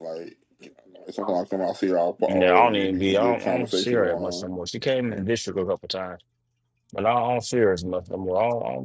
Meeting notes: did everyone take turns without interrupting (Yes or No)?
No